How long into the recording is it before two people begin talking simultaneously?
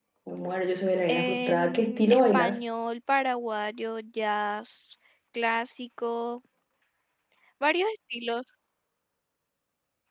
1.1 s

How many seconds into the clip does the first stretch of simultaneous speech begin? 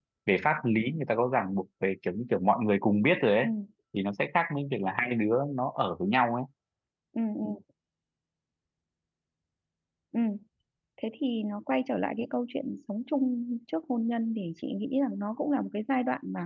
none

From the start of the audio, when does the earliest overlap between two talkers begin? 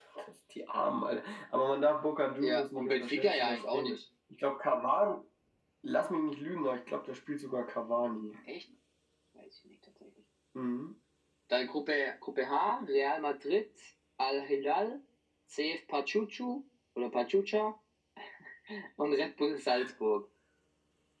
2.4 s

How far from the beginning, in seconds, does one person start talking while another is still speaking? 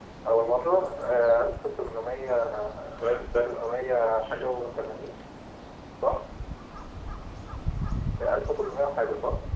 3.1 s

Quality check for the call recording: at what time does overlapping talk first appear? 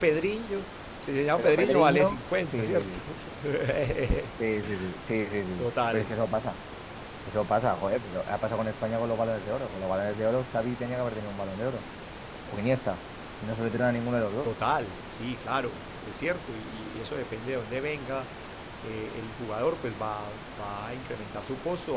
1.4 s

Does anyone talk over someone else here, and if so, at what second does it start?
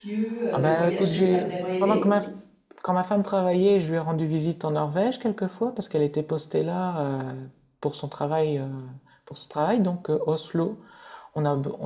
0.5 s

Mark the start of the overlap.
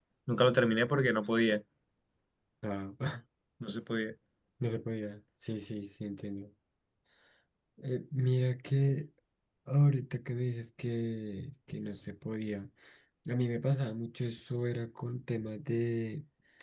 none

